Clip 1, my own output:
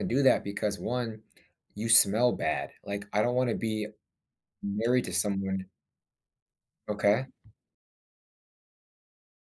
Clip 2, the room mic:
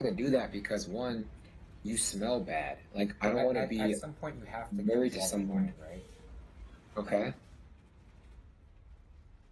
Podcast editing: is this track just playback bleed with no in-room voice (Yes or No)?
No